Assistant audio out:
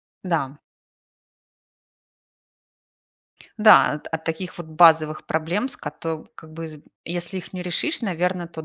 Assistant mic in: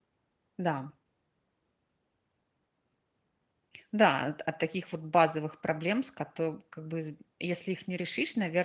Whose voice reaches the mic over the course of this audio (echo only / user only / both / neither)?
echo only